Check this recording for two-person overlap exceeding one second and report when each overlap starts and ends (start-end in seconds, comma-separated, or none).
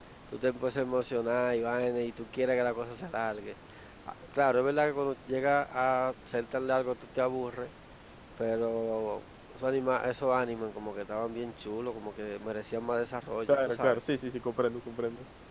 none